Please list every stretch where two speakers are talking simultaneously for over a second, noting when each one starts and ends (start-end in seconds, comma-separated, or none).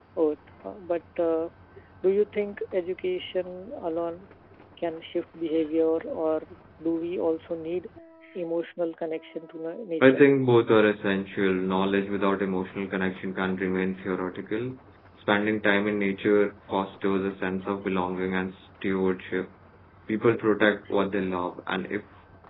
none